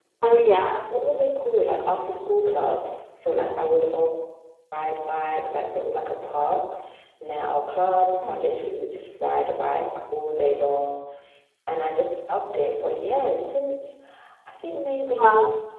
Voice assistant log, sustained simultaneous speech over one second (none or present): none